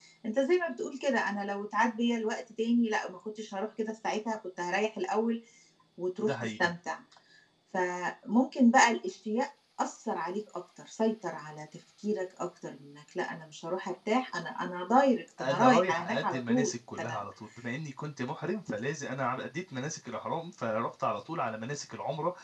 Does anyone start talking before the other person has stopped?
Yes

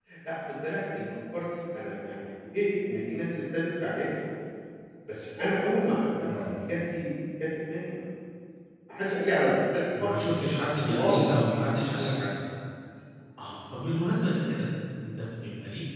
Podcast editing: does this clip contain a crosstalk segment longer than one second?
No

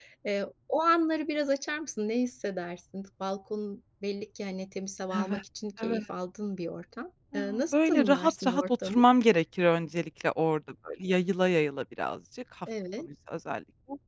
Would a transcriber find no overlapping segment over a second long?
No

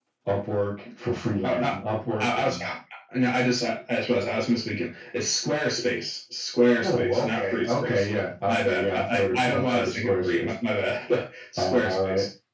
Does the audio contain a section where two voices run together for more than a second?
Yes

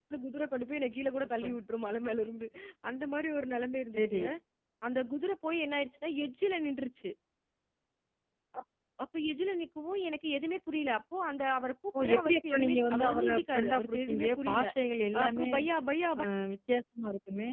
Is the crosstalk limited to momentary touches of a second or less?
No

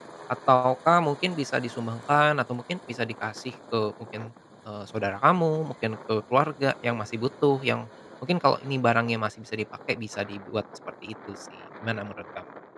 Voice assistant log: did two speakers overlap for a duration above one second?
No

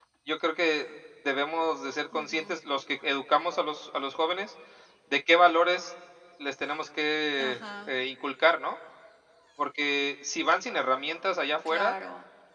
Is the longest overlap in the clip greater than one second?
No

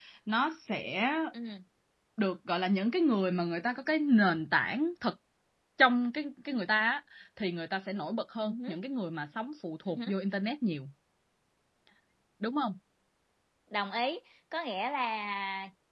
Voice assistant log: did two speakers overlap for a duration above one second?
No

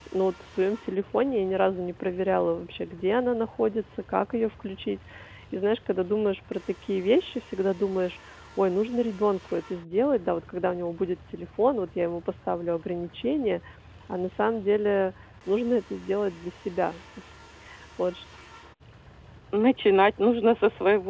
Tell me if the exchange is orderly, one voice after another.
Yes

